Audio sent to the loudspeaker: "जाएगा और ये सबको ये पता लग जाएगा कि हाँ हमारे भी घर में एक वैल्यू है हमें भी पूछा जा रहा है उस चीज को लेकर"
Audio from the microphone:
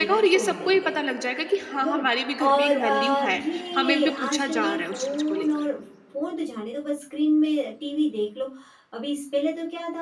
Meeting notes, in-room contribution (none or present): present